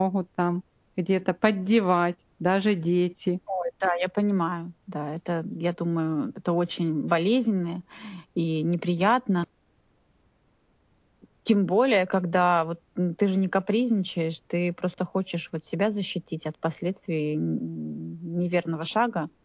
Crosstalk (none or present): none